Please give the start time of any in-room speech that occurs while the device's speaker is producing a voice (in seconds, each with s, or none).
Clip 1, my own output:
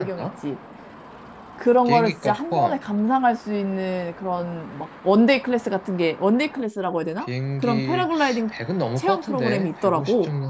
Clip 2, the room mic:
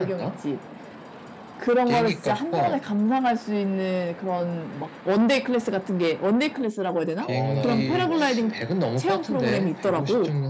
7.2 s